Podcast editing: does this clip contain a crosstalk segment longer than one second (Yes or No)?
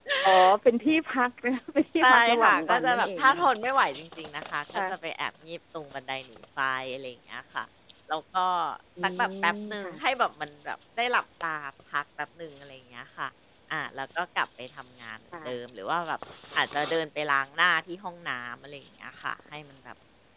Yes